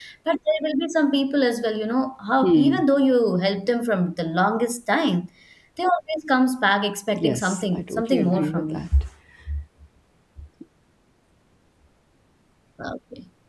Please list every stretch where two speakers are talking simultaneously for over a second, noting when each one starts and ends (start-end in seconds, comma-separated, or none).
7.1-8.9